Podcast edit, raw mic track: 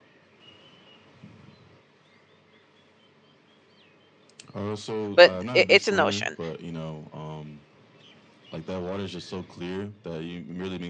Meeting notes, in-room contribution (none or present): present